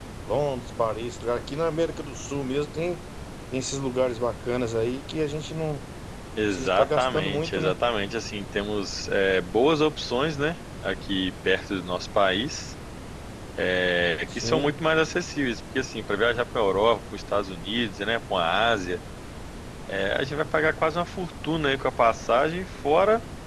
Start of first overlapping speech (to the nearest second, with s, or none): 7 s